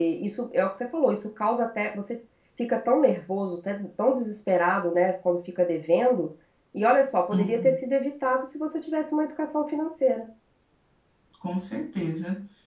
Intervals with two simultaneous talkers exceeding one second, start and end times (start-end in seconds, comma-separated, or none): none